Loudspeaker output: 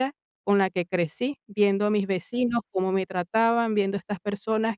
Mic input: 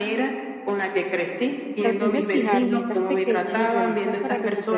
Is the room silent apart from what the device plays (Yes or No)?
No